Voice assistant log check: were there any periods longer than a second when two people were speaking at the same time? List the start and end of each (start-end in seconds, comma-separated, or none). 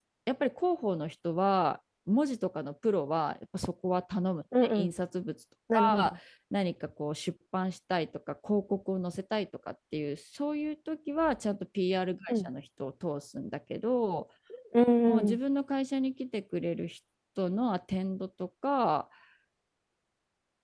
none